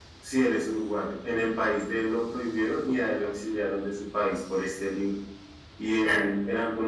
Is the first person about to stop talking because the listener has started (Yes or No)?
No